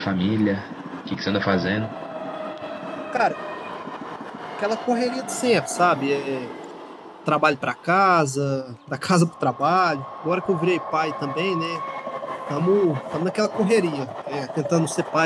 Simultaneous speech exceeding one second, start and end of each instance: none

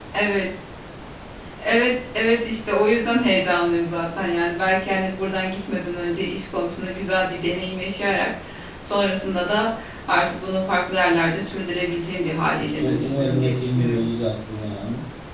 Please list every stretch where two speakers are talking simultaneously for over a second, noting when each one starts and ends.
12.6-14.0

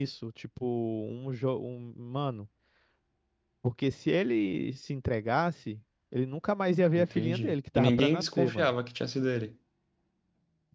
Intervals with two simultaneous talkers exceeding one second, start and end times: 7.0-8.7

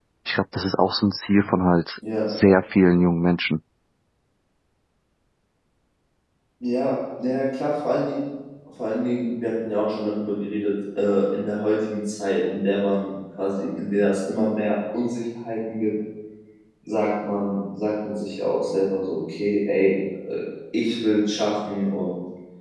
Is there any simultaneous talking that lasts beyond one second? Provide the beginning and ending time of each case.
none

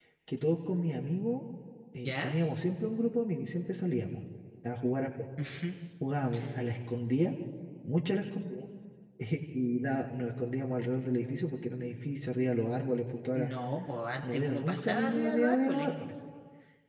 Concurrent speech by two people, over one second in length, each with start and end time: 14.3-15.9

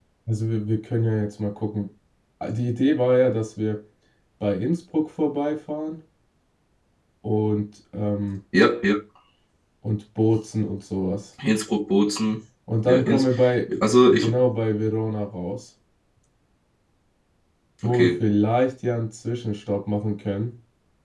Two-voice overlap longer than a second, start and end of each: none

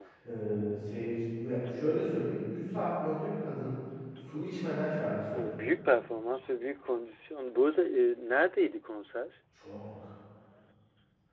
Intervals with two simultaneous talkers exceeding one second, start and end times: none

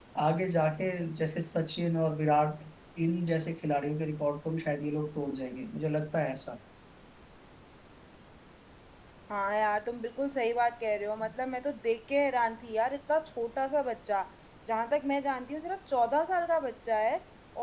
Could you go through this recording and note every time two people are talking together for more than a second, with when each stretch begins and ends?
none

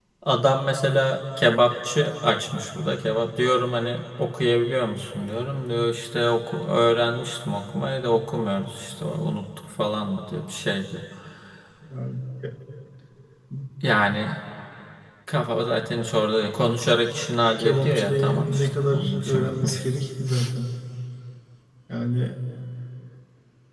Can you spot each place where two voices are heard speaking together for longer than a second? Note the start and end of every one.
17.6-19.8

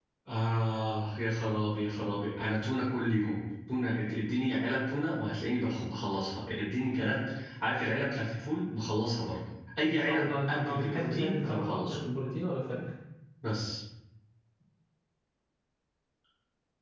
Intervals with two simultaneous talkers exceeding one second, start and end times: 9.9-11.9

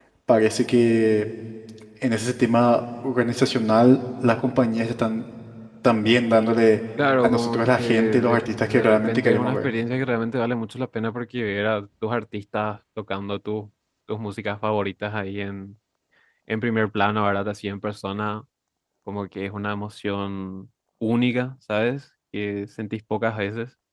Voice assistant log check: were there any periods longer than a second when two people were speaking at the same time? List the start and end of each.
7.2-9.7

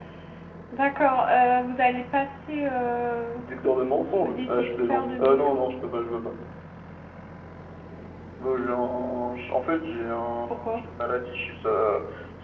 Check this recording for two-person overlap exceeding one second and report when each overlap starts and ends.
4.2-5.7

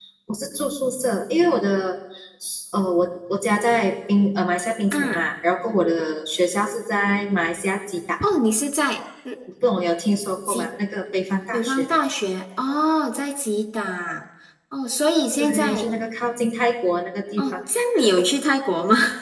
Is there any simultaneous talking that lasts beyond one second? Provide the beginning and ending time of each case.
none

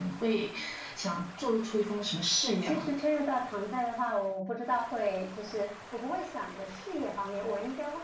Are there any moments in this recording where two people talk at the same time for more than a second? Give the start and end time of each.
none

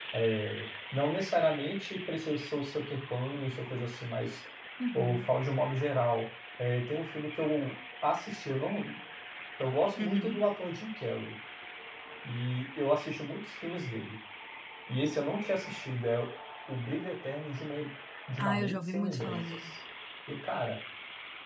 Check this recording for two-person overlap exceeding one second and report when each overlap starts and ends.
18.4-19.7

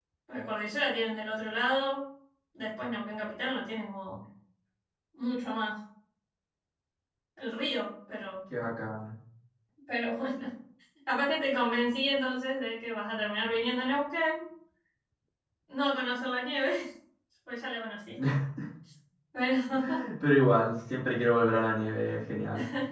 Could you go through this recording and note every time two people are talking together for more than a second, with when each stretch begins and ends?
none

